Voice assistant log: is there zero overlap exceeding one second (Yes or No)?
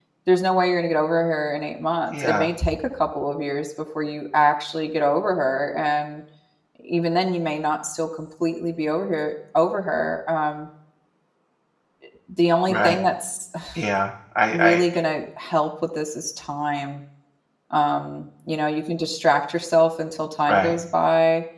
Yes